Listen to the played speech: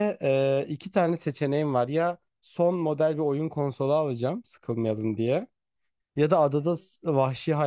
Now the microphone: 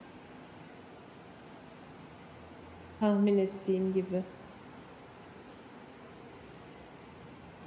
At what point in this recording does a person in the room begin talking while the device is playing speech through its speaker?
3.0 s

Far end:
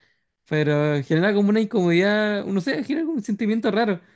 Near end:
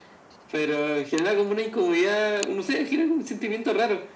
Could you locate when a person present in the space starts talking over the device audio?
none

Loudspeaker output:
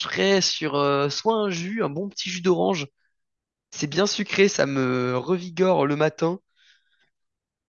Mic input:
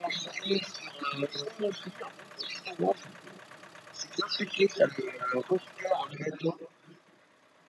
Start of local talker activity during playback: none

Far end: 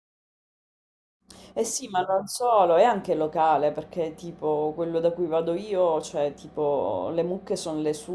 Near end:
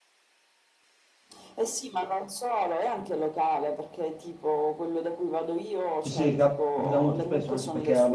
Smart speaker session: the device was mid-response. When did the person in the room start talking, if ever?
6.0 s

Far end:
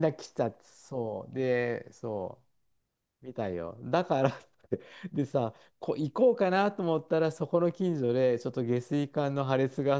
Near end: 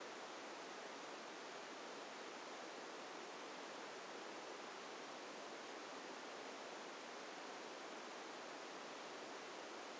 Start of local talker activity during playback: none

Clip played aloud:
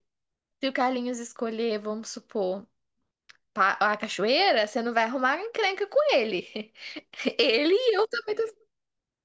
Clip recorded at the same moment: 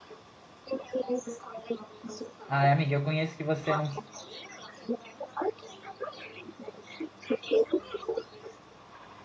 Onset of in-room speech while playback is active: 2.4 s

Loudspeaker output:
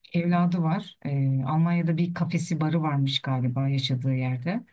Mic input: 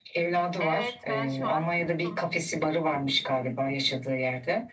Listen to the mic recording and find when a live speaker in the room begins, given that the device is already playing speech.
0.6 s

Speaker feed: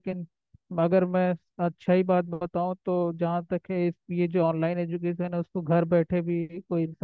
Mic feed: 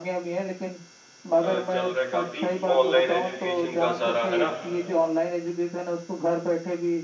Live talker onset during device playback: 1.4 s

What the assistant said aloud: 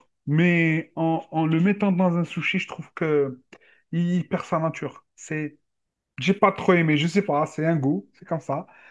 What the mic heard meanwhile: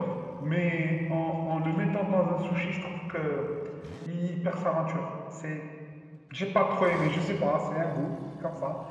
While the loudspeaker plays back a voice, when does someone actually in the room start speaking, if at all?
none

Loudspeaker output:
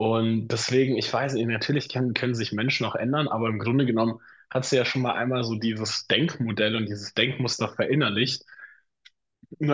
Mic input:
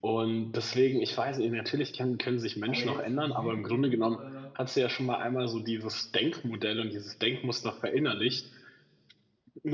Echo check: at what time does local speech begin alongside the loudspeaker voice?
2.6 s

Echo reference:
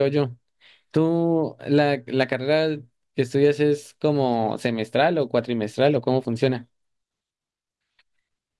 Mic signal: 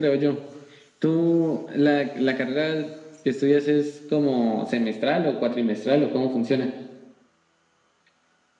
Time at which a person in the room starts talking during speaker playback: none

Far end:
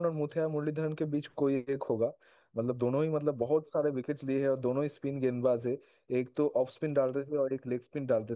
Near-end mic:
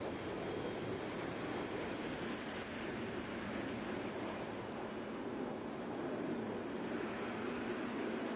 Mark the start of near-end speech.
none

